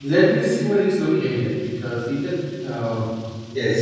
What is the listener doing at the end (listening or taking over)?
taking over